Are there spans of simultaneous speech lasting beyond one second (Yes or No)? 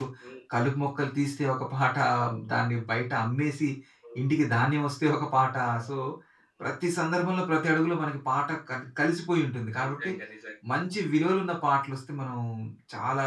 No